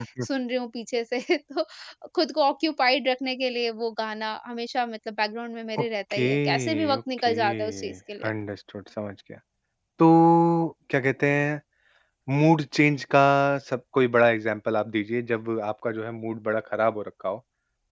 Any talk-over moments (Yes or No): Yes